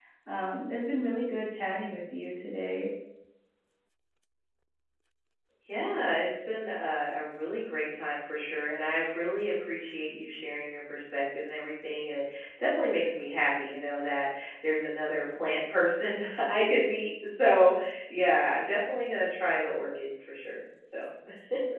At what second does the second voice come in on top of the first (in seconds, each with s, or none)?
none